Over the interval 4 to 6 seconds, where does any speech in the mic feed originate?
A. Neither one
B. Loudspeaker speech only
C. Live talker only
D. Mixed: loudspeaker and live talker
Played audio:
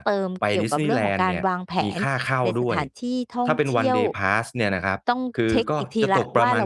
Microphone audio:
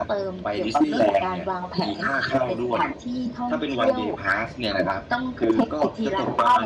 B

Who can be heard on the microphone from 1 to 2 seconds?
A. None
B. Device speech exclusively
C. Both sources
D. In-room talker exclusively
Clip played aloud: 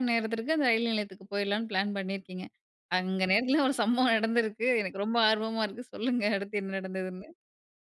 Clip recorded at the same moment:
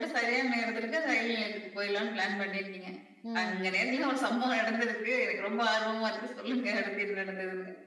B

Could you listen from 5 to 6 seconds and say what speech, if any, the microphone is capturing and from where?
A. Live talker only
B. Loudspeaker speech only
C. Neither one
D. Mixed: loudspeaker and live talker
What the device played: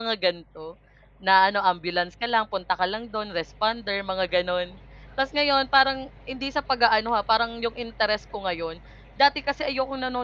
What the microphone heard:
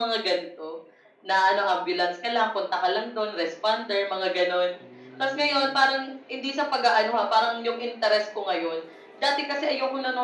D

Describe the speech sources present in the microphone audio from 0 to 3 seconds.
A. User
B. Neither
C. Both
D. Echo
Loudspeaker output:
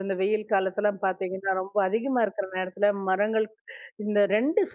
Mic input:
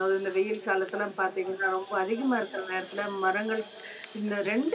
D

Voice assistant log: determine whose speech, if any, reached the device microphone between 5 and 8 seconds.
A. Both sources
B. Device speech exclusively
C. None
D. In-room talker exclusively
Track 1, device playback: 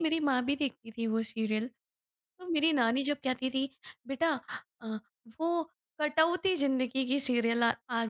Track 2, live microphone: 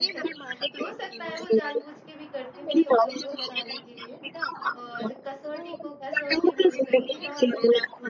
A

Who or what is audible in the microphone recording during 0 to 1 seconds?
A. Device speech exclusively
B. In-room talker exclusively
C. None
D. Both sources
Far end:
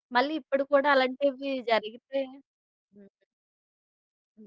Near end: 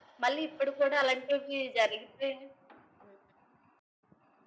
A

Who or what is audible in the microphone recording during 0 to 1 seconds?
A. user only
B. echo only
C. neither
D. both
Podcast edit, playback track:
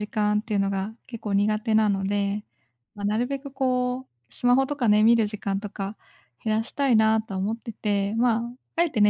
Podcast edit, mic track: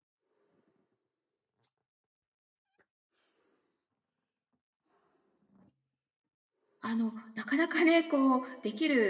C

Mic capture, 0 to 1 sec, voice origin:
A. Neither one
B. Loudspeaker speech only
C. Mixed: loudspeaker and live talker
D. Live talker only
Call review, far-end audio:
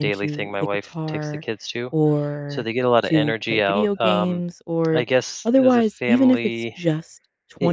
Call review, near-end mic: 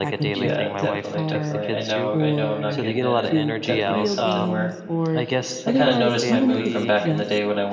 C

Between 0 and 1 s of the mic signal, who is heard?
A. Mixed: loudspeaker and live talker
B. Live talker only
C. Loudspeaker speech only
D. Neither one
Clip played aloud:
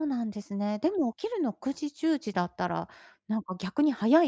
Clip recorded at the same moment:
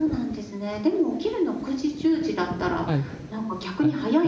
C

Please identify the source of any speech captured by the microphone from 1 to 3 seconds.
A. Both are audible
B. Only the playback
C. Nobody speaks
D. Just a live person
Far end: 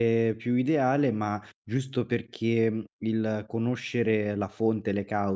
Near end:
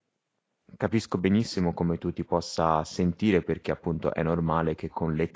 D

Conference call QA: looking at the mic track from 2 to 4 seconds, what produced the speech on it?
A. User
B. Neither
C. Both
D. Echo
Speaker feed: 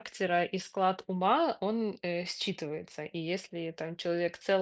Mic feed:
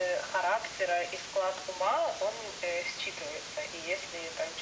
D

